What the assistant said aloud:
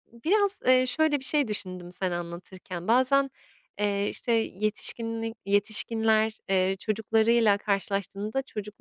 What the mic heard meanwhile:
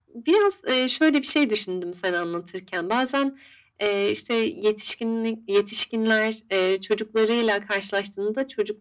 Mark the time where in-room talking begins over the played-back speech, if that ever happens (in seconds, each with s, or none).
none